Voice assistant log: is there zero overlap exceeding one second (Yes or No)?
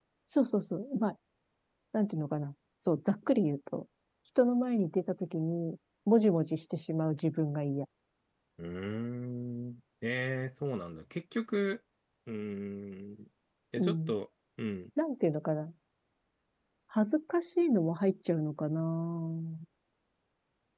Yes